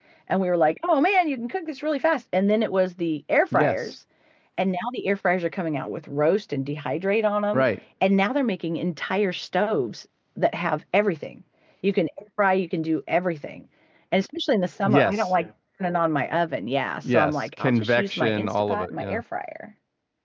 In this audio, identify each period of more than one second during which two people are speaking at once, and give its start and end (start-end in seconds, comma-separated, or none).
17.0-19.2